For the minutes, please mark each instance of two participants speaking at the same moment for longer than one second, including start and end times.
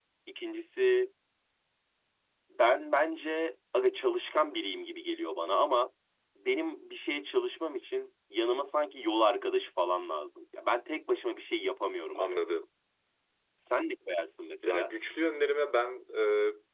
none

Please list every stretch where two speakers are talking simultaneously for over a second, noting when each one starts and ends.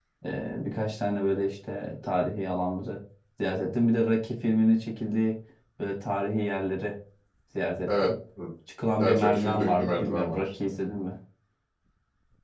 9.0-10.5

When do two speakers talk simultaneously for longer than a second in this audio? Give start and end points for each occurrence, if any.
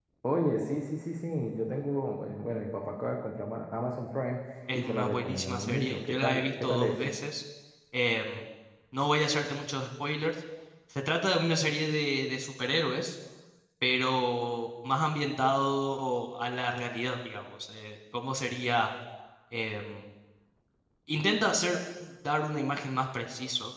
4.7-7.1

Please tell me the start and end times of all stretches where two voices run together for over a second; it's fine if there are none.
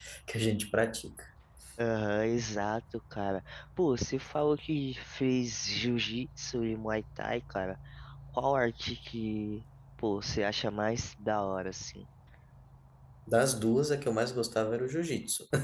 none

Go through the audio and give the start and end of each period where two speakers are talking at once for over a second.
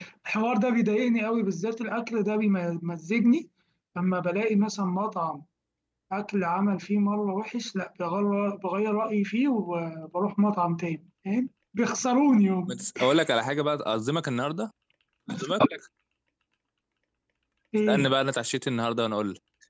none

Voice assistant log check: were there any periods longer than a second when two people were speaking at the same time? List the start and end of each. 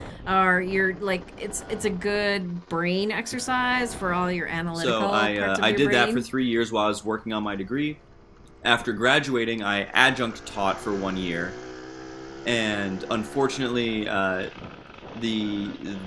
4.8-6.3

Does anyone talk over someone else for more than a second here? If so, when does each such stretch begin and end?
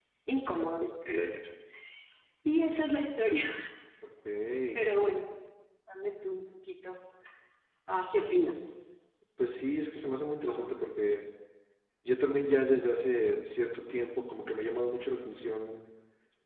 none

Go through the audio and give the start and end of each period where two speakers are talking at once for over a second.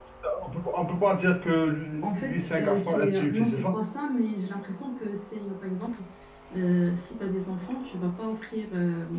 2.0-3.7

